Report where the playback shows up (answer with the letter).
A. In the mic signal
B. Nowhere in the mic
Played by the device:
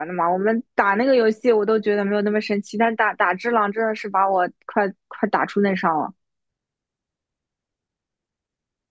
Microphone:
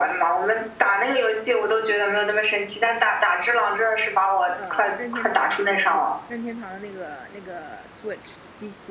A